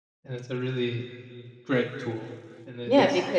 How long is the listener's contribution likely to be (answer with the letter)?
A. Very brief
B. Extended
B